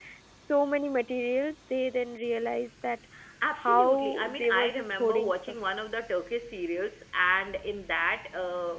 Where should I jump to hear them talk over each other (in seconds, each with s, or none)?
3.6 s